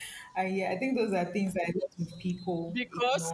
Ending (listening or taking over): taking over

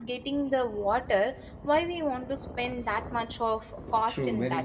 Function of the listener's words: taking over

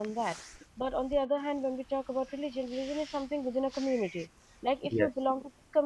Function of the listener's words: listening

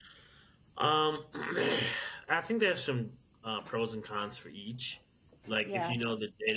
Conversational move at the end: listening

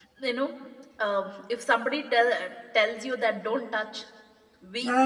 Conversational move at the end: listening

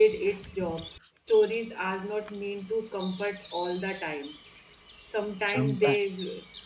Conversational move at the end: listening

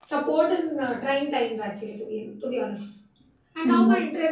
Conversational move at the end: listening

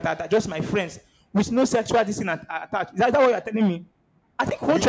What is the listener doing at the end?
taking over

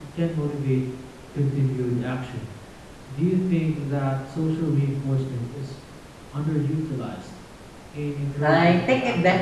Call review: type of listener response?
taking over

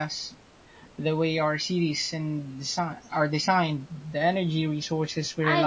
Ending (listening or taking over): taking over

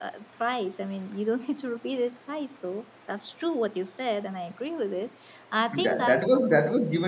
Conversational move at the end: taking over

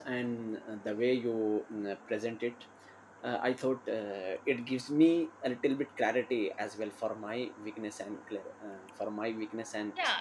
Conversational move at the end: taking over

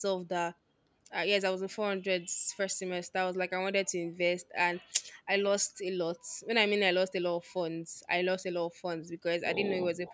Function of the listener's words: listening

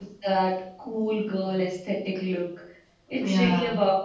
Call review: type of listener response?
listening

